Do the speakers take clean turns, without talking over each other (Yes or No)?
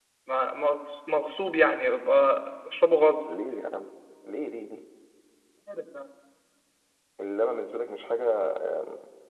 Yes